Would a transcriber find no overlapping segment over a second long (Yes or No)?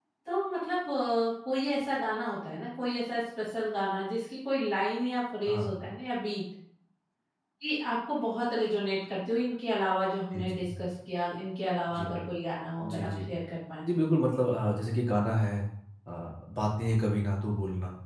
Yes